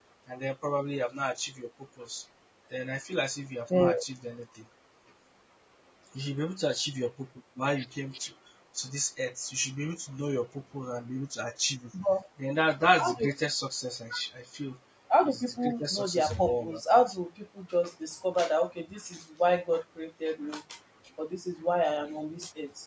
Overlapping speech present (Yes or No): Yes